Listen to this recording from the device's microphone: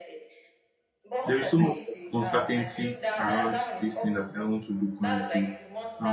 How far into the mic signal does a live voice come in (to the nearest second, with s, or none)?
1 s